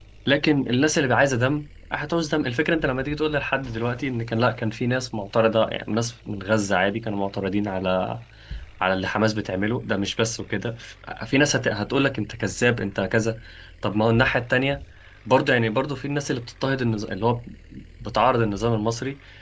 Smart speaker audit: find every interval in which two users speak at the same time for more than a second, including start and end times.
none

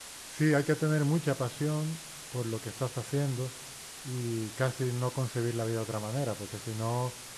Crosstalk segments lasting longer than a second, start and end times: none

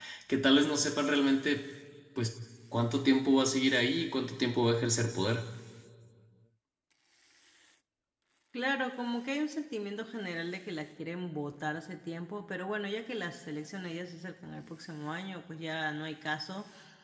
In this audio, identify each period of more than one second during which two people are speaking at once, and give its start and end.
none

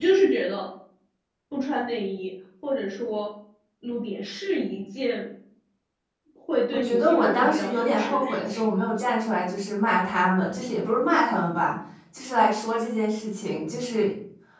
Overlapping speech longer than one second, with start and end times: 6.7-8.7

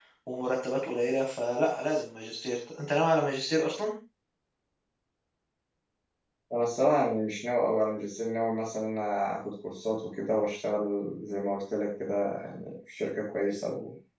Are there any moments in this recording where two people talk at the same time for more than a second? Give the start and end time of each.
none

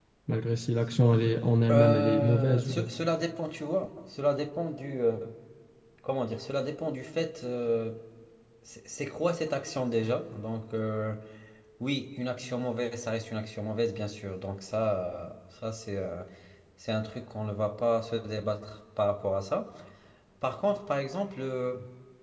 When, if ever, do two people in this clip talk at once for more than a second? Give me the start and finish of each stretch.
1.7-2.9

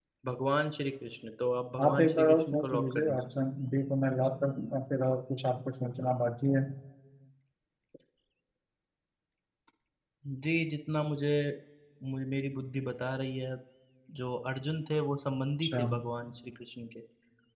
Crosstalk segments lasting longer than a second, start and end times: 1.8-3.2

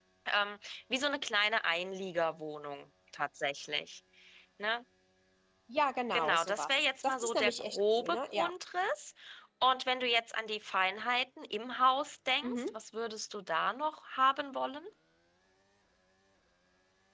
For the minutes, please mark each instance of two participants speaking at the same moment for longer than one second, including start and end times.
6.1-8.5

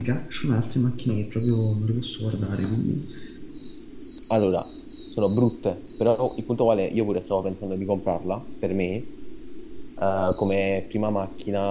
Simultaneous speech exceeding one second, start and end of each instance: none

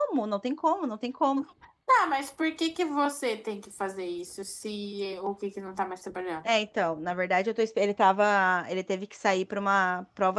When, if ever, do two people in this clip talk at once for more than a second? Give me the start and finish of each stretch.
none

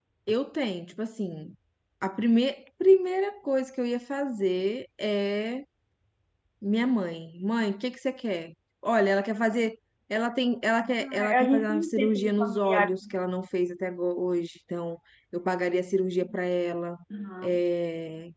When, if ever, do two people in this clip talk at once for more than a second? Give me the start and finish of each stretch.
11.0-13.0

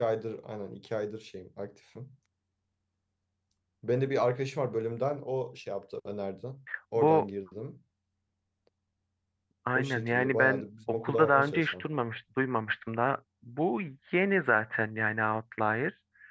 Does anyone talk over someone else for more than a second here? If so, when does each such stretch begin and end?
9.8-11.8

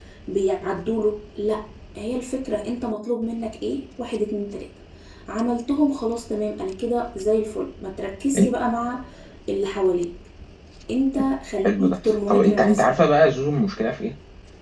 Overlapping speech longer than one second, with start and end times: 11.6-12.9

